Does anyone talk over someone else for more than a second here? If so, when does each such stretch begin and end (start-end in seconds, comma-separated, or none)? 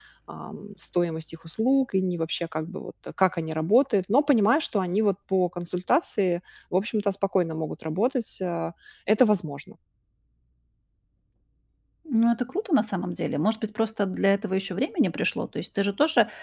none